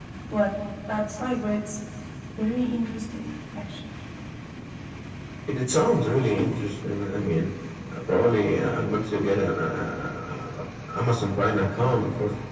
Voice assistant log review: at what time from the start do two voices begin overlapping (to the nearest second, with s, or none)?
none